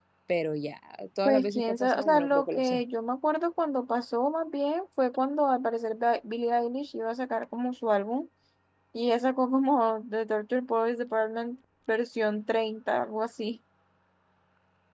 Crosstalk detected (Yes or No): Yes